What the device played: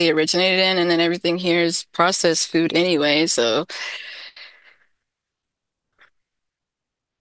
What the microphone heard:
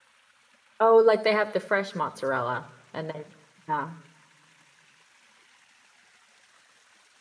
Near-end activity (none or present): present